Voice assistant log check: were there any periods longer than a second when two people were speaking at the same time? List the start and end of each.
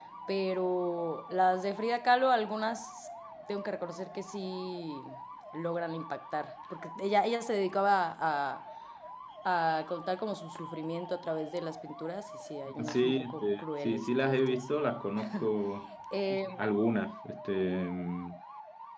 12.8-14.6

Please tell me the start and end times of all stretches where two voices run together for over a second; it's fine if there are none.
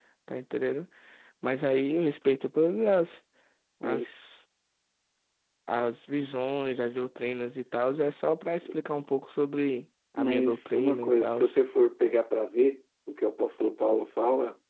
10.2-11.4

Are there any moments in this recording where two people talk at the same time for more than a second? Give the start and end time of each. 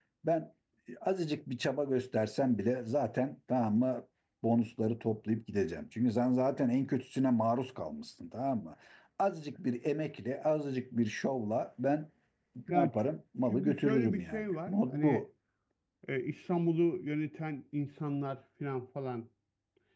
13.5-15.2

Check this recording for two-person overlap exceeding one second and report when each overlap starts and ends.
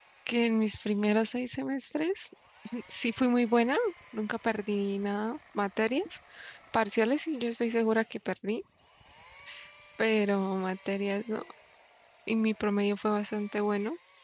none

